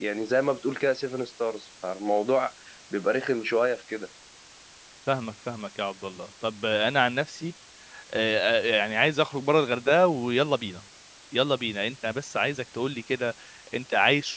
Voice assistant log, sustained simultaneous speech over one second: none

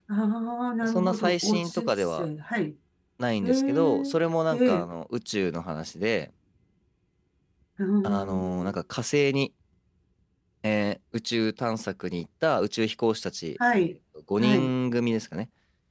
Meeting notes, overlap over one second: present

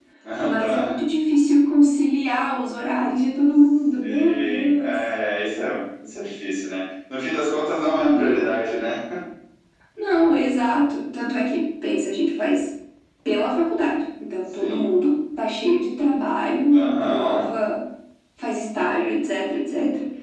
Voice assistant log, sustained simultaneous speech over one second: present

